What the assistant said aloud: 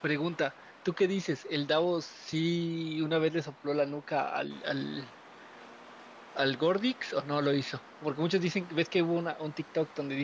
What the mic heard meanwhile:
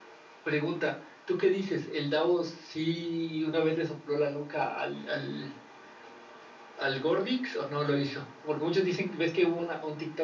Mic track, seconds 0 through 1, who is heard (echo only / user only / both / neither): echo only